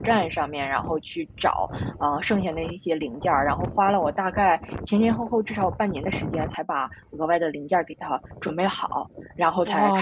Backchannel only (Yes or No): No